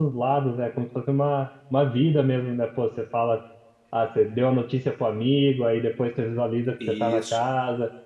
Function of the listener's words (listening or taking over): listening